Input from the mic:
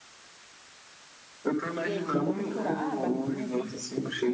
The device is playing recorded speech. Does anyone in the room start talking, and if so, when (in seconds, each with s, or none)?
1.8 s